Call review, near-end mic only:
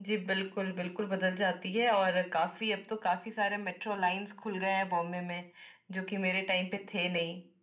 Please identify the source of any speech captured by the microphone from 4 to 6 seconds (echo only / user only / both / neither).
echo only